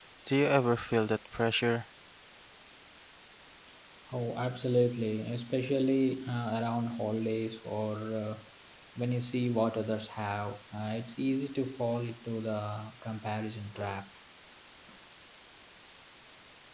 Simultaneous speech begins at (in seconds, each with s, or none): none